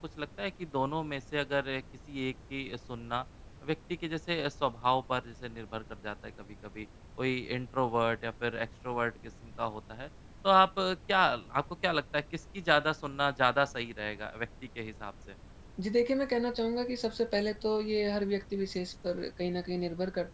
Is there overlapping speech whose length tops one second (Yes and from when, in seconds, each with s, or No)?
No